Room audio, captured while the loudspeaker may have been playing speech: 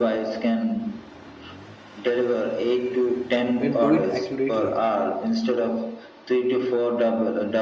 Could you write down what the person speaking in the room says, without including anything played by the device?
and do it accurately,

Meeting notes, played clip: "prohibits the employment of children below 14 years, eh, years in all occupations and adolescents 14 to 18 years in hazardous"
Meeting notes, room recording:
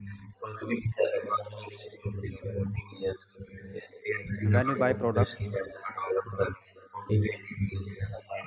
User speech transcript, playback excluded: when you buy products,

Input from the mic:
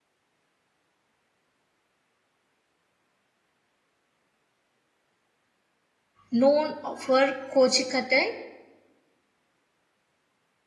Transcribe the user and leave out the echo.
known for Kochikattai,

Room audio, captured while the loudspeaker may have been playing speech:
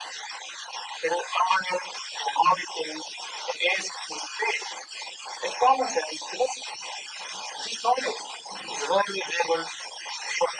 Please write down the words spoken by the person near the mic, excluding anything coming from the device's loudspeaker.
none

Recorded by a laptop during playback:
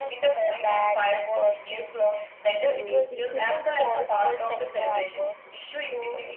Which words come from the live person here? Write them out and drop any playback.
uh, different

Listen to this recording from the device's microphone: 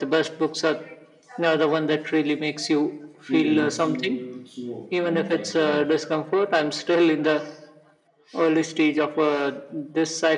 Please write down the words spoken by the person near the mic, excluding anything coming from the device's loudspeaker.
feel a little too manufactured.

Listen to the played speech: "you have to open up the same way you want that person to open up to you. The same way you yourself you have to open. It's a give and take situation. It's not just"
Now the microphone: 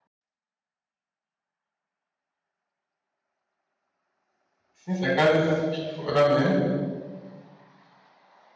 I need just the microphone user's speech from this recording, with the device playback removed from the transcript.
since I can't speak for other men,

